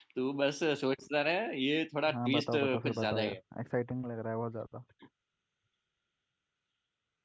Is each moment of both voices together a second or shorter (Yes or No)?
No